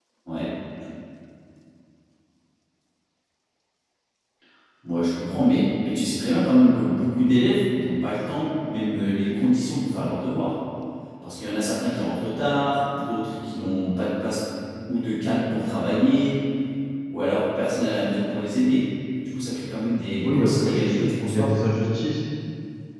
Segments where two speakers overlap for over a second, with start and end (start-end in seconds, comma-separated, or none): 20.2-21.6